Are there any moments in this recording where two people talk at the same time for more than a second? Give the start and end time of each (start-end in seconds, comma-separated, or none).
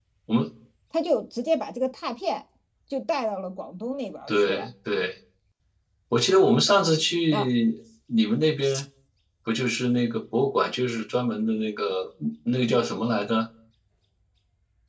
none